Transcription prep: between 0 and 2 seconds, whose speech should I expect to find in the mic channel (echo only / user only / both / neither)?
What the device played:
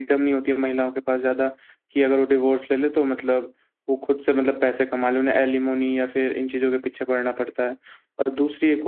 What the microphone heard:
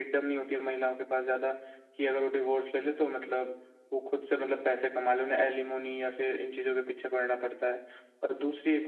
echo only